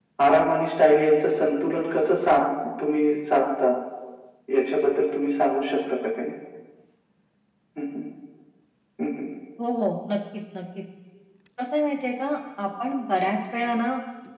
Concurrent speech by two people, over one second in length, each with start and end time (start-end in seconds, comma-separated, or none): none